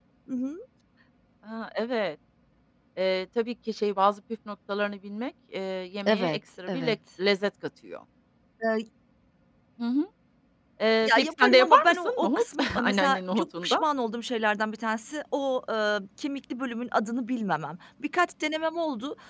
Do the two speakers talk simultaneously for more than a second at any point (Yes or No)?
Yes